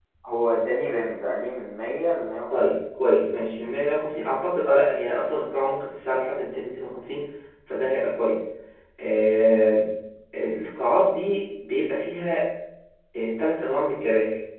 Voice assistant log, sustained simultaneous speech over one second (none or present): none